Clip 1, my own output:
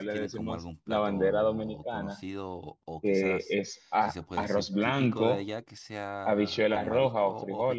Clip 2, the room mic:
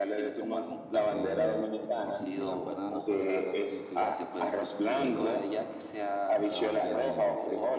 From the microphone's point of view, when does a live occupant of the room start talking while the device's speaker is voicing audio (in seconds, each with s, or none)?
1.1 s